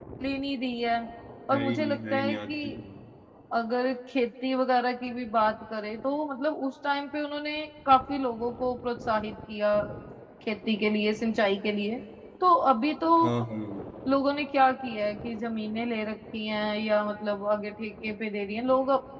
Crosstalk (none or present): present